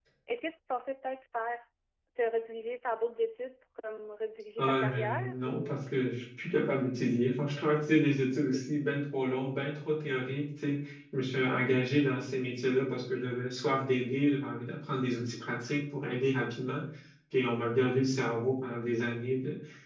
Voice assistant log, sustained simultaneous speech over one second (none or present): present